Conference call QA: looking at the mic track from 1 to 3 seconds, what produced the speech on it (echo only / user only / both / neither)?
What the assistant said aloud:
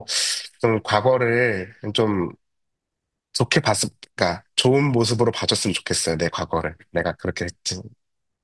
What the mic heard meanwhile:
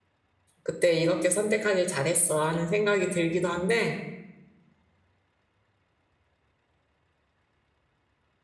user only